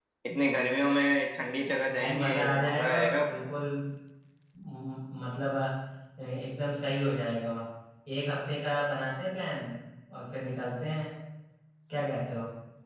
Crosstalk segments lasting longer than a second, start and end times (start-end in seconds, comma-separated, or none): 2.0-3.3